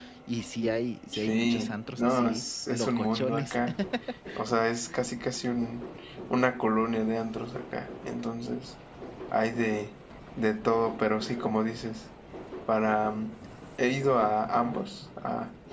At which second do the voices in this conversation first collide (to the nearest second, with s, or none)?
1 s